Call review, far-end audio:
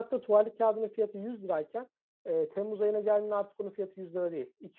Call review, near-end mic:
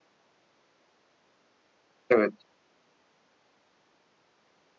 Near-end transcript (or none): Evet. evet.